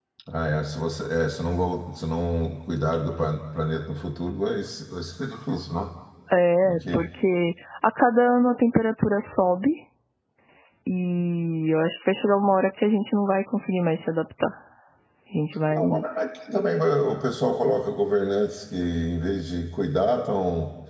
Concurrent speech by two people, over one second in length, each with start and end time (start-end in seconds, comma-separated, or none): none